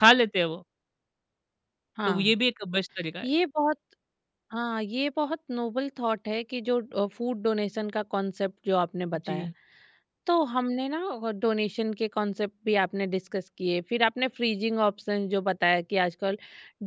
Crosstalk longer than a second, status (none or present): none